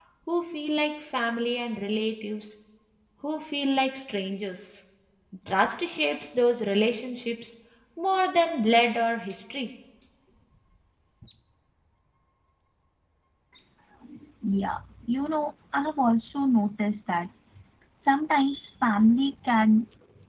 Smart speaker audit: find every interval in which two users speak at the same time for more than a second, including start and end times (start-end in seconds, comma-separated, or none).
none